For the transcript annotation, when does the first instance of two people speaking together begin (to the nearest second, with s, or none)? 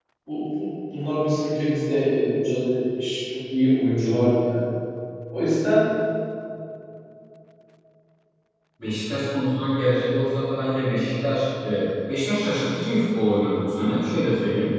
none